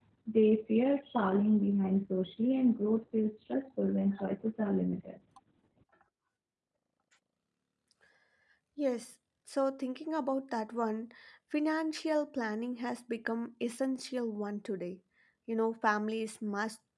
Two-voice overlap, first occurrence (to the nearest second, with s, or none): none